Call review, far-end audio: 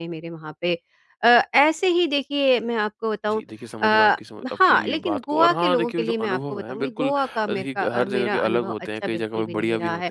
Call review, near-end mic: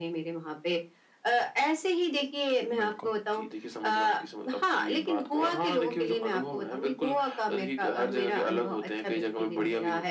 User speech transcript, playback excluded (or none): बिल्कुल।